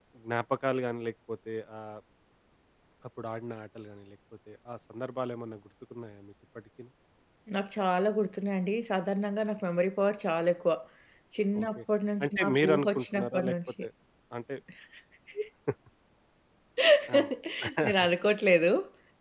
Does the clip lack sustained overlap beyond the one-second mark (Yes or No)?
No